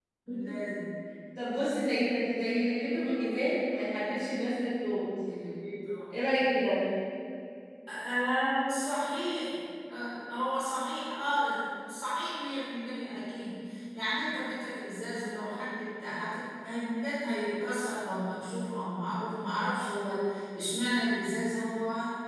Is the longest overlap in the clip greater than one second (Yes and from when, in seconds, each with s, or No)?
No